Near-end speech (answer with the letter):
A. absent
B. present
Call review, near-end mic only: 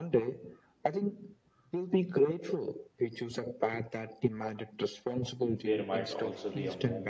B